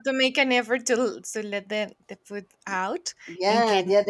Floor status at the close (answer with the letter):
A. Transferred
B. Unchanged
A